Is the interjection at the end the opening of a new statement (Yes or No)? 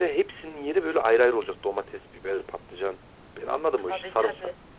Yes